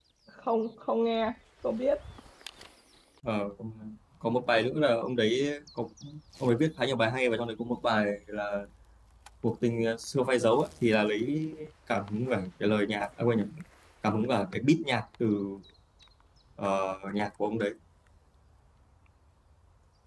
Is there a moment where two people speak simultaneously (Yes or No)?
No